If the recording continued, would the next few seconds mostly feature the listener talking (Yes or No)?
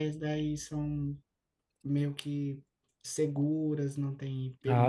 Yes